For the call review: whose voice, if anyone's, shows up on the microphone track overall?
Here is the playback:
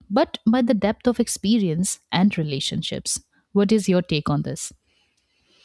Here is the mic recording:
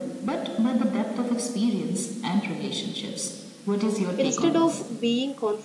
both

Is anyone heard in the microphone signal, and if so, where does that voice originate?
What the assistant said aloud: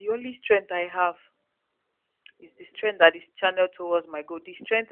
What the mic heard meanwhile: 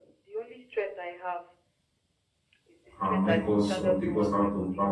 both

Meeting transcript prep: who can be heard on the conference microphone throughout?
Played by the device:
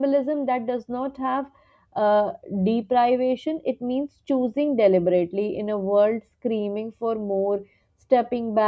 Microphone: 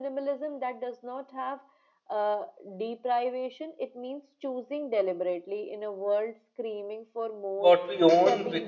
both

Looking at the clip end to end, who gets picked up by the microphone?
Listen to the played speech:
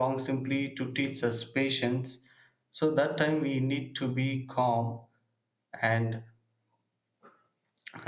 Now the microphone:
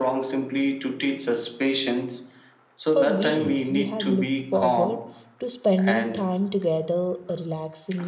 both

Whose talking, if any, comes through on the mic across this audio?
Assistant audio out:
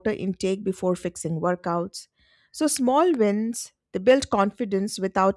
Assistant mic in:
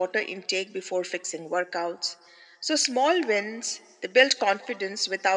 echo only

